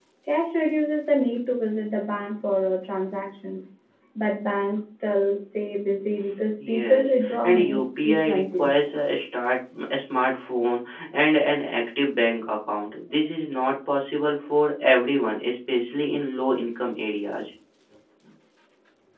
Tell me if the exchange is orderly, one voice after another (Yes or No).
No